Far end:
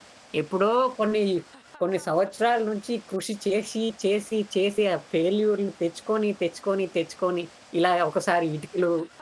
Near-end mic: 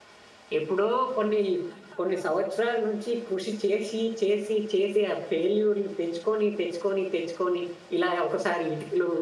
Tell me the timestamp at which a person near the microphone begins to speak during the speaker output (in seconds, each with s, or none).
none